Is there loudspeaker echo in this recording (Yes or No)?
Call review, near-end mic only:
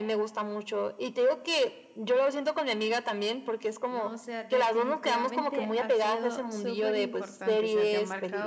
Yes